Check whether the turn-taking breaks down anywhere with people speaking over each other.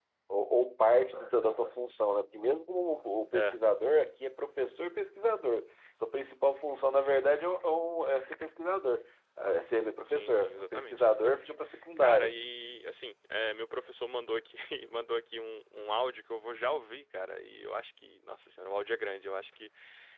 Yes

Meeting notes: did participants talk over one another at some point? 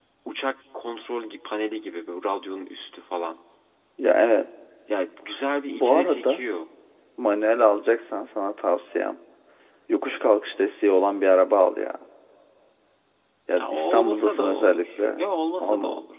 Yes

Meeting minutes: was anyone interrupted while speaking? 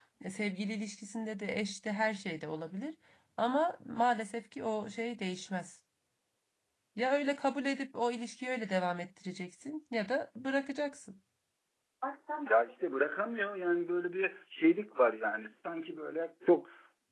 No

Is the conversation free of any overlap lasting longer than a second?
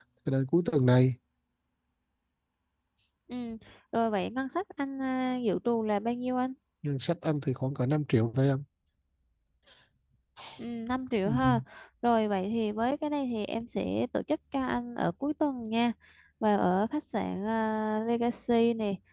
Yes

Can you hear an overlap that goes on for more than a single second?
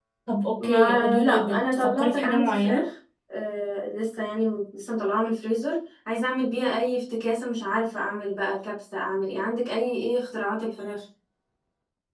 Yes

